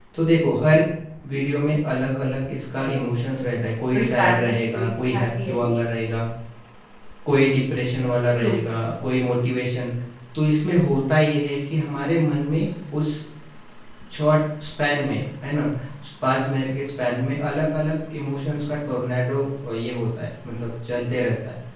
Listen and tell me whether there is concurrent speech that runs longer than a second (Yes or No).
Yes